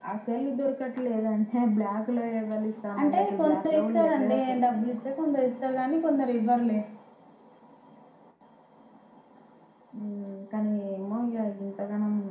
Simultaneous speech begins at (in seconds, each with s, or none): 3.0 s